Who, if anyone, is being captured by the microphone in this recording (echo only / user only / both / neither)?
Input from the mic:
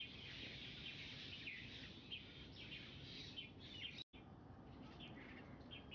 neither